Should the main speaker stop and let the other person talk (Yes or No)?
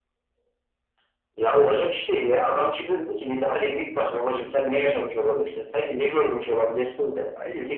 No